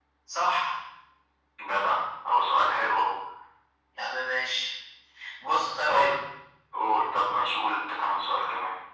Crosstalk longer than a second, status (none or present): none